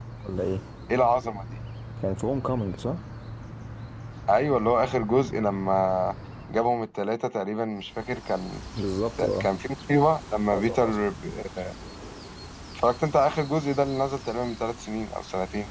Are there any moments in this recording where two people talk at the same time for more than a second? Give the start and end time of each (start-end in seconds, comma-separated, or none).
none